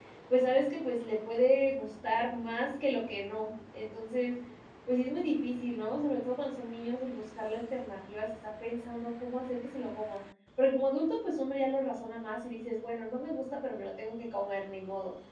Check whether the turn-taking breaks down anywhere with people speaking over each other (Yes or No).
No